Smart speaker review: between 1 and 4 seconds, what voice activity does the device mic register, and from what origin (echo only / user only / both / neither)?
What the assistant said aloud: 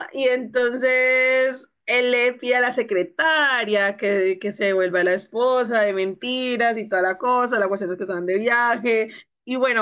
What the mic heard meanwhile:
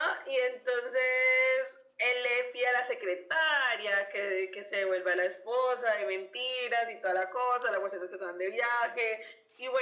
echo only